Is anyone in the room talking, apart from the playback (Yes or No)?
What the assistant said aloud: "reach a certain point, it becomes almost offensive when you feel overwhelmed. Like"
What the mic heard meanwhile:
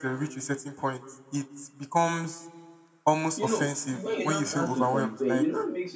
Yes